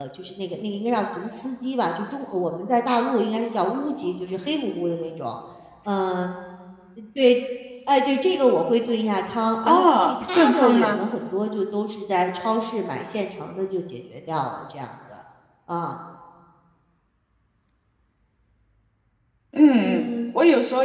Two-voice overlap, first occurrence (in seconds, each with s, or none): 9.6 s